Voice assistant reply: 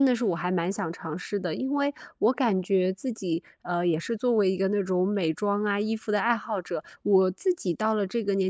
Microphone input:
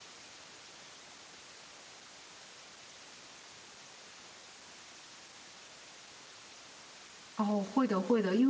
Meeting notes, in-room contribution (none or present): present